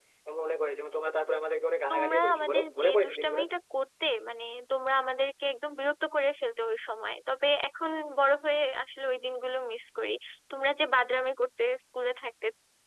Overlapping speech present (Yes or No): Yes